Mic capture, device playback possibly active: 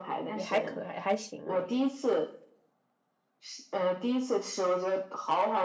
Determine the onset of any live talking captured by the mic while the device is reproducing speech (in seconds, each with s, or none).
0.3 s